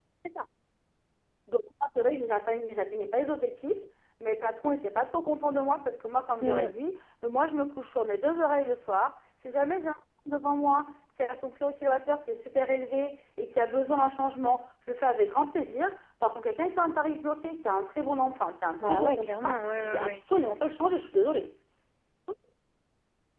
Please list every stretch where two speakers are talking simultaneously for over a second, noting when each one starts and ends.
18.8-20.2

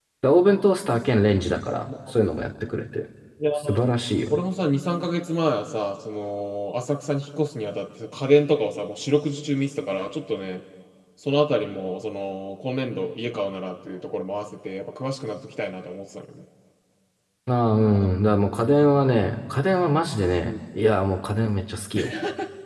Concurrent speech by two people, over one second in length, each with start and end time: none

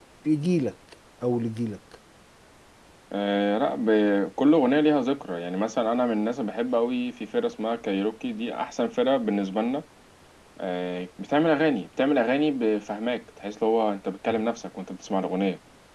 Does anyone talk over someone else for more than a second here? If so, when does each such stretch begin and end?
none

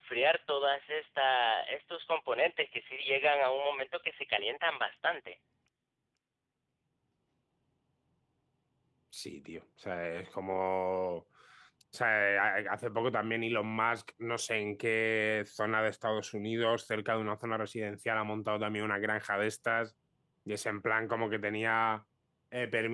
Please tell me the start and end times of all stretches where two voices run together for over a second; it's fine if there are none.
none

